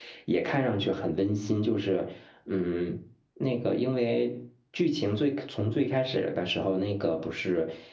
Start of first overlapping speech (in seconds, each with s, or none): none